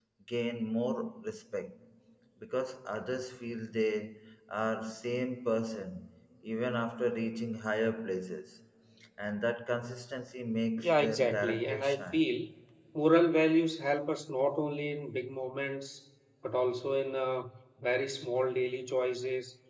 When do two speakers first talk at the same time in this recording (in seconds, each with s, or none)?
10.8 s